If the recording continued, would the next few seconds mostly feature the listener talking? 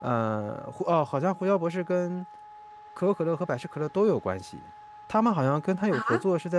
No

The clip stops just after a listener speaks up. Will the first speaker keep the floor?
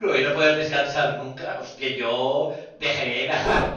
Yes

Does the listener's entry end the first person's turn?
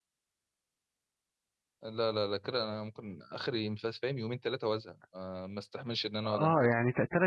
Yes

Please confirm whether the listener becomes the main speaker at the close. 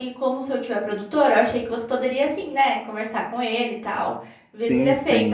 Yes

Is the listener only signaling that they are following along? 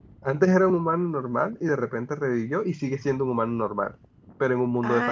No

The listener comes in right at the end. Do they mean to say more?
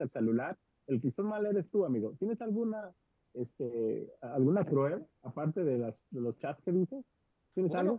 Yes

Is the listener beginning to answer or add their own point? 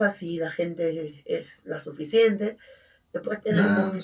No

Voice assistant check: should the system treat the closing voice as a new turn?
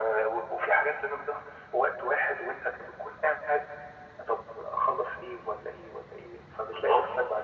No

